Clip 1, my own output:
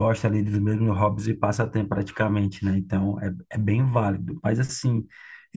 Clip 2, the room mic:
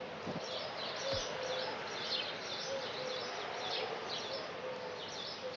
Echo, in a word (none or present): none